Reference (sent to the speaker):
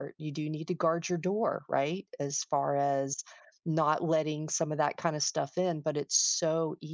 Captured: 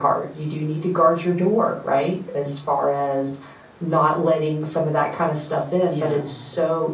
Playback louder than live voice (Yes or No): Yes